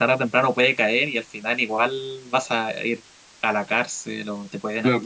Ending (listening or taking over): taking over